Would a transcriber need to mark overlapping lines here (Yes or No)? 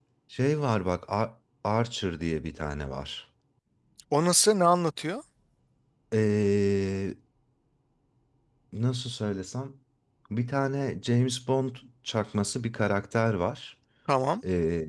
No